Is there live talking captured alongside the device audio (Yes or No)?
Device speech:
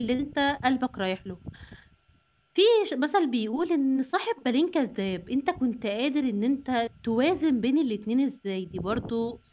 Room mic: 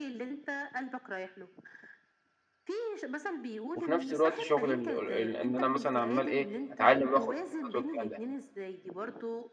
Yes